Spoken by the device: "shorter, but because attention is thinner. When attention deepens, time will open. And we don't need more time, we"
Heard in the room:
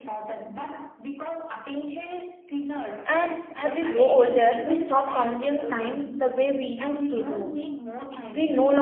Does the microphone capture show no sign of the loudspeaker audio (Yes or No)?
No